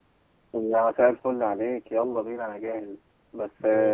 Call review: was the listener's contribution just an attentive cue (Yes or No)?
Yes